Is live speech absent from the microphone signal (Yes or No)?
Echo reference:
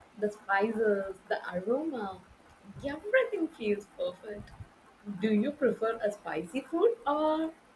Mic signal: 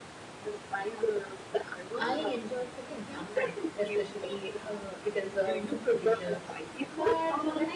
No